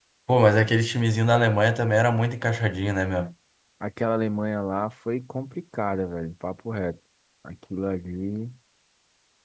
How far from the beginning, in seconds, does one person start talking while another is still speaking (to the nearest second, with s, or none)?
none